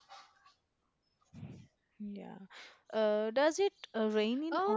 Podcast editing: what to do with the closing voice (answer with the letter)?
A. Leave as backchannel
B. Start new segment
B